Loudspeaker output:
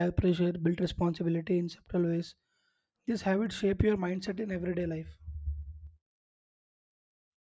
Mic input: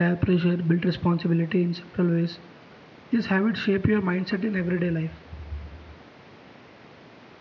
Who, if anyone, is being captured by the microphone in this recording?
echo only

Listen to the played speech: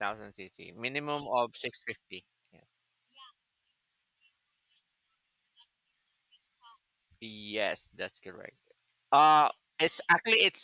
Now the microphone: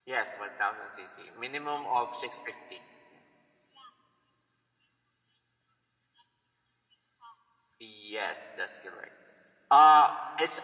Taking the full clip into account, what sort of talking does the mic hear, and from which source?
echo only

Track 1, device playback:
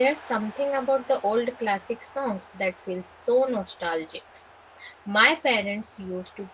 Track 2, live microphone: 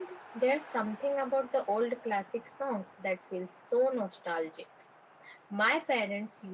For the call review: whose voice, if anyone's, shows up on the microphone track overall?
echo only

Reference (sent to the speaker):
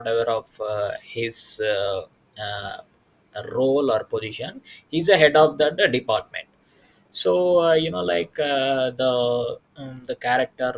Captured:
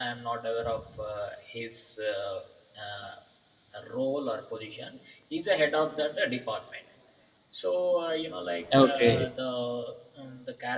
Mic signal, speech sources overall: both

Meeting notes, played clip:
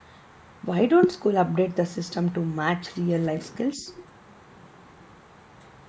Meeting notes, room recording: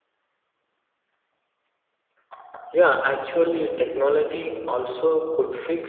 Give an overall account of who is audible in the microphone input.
user only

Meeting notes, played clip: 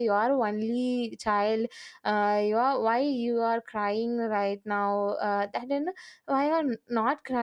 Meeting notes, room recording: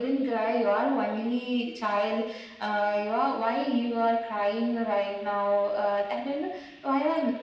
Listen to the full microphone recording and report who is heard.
echo only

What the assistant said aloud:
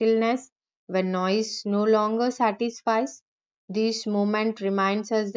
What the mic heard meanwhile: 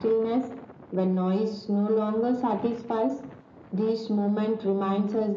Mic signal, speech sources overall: echo only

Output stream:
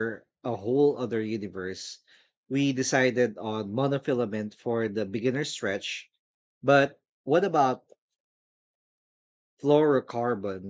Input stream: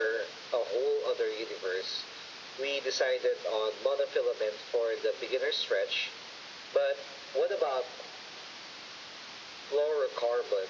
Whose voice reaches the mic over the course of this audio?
echo only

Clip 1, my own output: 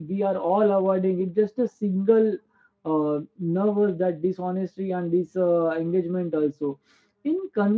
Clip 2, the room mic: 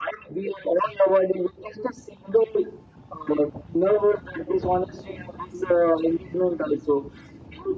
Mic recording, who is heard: echo only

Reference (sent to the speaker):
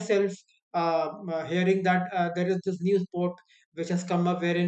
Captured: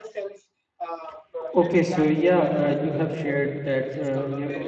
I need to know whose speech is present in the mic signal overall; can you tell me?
both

